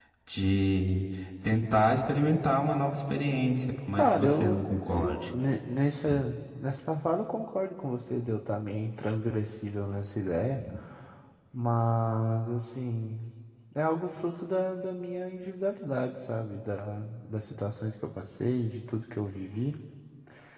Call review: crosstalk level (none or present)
present